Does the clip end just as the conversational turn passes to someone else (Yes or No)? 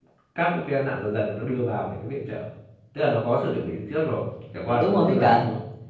Yes